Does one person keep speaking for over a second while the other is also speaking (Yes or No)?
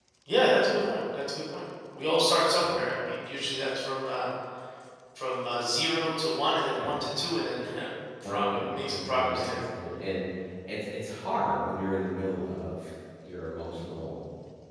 Yes